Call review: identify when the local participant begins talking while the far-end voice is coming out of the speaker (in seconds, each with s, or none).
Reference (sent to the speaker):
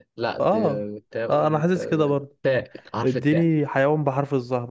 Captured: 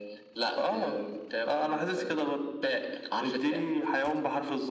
none